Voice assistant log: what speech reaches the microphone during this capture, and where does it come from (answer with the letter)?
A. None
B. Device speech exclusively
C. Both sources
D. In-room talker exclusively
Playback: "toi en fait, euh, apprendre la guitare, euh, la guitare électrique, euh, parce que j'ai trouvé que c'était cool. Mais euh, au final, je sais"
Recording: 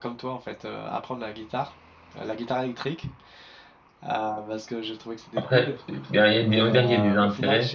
C